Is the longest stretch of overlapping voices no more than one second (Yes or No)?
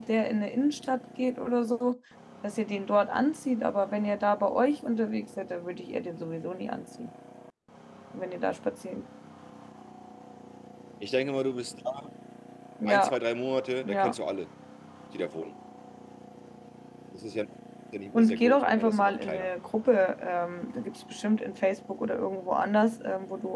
No